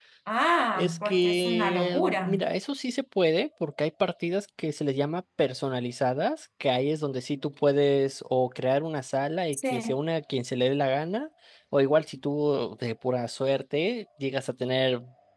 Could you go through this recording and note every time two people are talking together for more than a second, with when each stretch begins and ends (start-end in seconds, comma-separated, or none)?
0.8-2.4